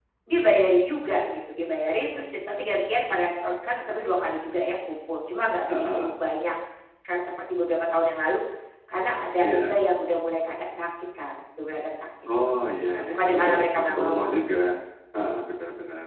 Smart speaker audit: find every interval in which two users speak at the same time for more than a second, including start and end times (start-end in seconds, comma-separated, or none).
12.9-14.4